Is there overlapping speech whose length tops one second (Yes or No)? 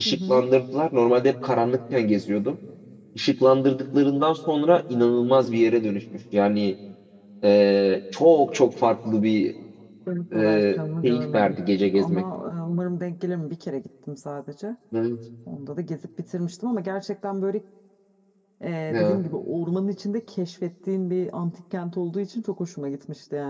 Yes